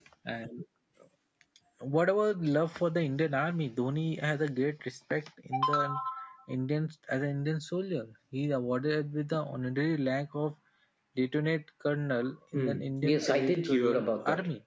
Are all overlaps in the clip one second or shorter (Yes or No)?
No